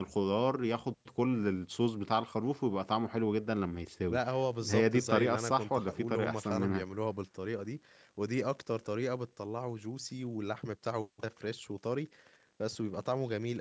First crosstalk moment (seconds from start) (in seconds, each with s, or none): 4.7 s